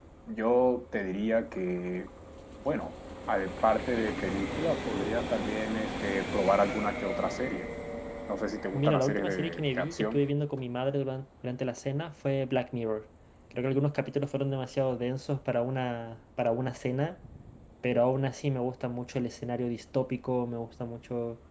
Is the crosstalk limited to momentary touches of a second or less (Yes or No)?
No